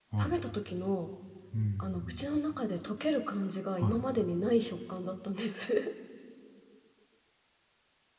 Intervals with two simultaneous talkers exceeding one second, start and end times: none

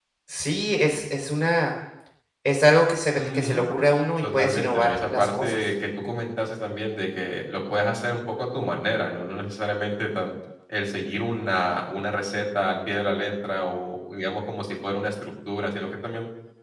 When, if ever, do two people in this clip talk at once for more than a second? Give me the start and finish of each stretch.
4.2-5.7

